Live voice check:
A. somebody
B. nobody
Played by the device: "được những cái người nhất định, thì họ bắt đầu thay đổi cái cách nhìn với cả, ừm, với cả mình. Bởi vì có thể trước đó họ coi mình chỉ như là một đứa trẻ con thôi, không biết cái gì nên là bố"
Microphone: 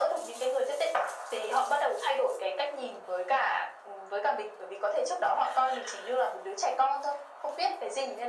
B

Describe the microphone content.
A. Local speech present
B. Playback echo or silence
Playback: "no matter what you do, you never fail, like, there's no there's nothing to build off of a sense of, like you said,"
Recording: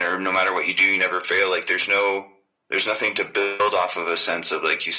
B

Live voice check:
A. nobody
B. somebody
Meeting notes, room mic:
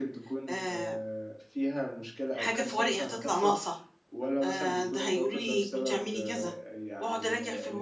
B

